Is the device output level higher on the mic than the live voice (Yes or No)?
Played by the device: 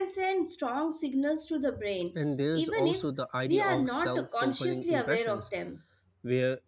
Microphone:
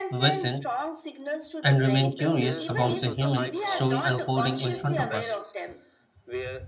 No